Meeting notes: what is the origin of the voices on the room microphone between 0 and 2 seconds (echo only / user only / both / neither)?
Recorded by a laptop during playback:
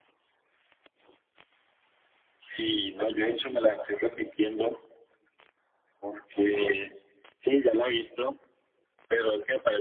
neither